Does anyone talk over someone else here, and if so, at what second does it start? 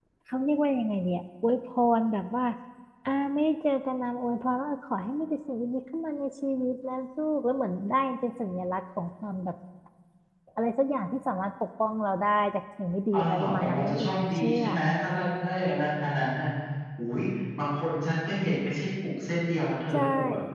13 s

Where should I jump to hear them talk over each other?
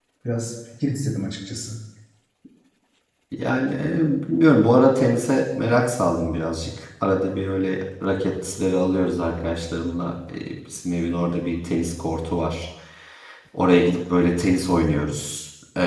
none

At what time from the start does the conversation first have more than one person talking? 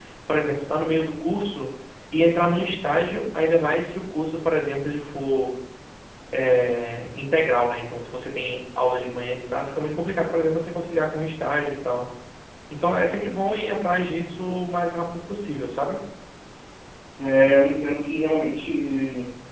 none

